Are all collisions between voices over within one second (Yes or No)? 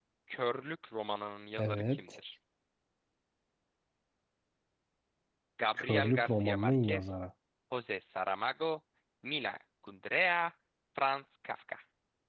No